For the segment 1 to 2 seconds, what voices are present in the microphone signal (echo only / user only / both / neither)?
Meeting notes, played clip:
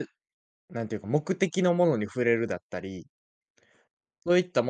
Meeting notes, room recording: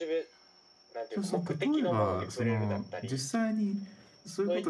both